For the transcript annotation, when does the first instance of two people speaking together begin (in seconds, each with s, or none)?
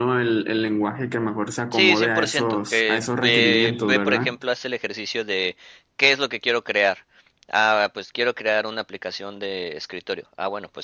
1.7 s